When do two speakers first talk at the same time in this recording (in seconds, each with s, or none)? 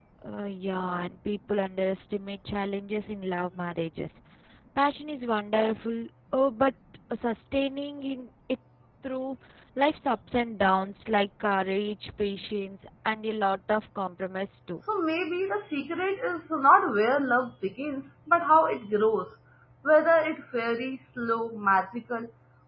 none